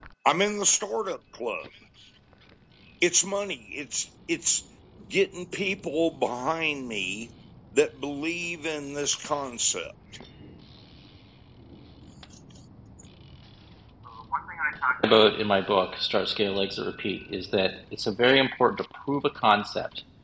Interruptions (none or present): none